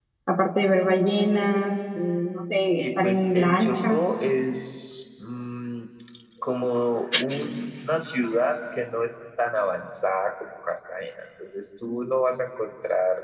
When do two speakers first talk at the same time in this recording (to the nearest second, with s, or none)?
3 s